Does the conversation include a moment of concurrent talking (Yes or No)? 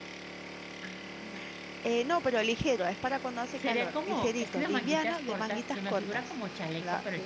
Yes